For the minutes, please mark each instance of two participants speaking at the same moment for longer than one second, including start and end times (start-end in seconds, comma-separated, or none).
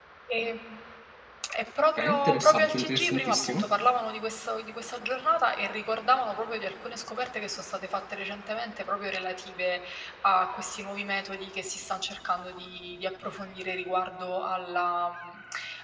2.0-3.7